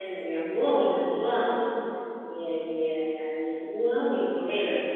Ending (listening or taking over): taking over